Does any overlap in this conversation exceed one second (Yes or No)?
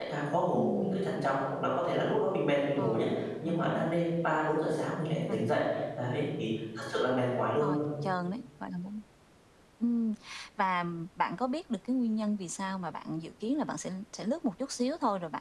No